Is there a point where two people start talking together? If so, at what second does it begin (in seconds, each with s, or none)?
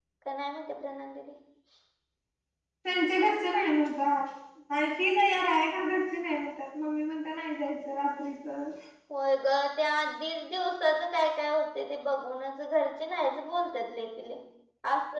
none